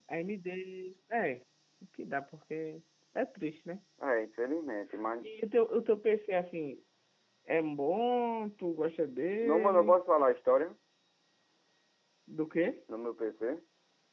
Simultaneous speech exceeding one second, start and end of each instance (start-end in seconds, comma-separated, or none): none